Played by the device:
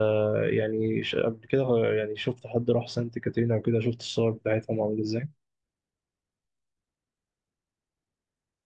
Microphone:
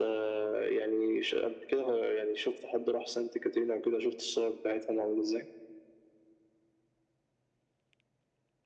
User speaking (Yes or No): No